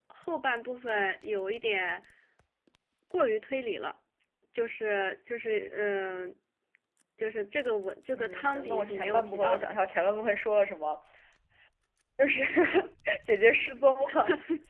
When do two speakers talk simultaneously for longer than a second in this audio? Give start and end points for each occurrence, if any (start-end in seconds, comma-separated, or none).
8.1-9.6